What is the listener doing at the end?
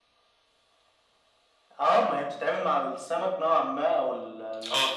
listening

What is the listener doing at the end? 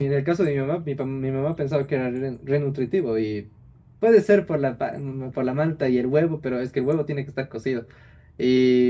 listening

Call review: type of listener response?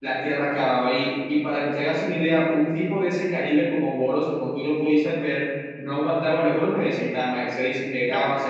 listening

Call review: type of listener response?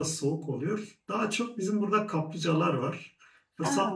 listening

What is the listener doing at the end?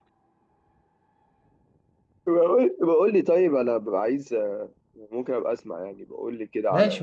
taking over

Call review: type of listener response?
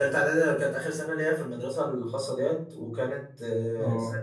listening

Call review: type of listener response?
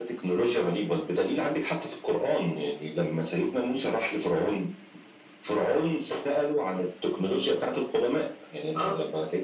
listening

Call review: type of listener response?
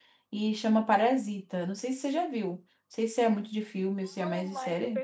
taking over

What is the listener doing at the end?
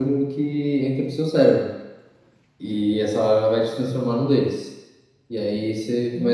listening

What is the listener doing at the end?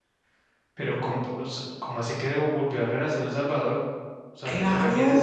taking over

